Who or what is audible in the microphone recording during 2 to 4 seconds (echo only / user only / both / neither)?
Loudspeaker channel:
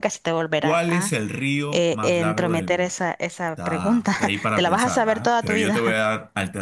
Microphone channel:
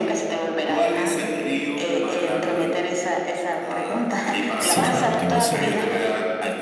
echo only